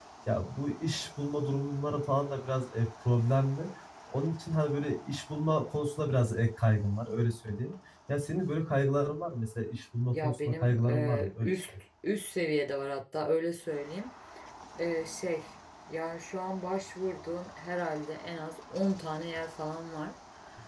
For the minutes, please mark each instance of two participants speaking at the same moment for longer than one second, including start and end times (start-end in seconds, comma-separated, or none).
10.1-11.5